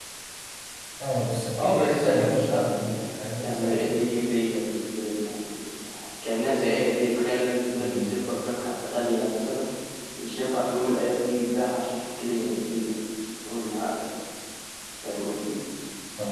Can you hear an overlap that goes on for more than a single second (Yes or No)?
Yes